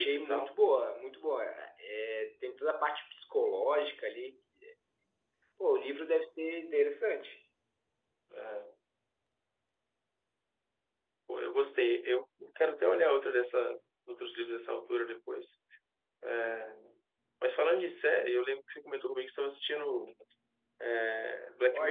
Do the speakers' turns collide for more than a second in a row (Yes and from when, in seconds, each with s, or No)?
No